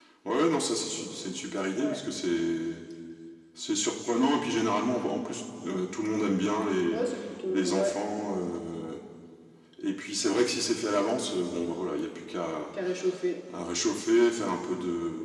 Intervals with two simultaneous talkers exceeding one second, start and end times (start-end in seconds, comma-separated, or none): none